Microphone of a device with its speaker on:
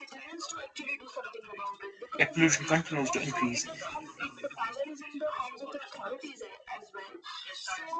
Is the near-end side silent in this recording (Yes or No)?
No